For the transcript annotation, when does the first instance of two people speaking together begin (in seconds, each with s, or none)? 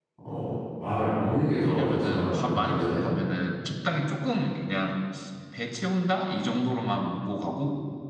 1.6 s